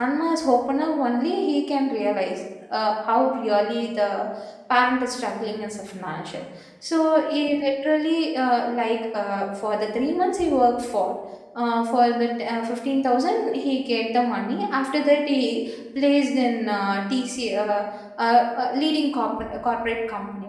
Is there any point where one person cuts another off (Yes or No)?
No